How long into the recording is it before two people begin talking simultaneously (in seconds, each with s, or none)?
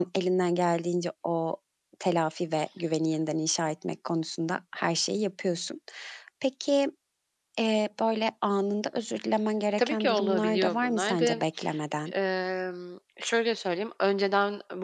9.8 s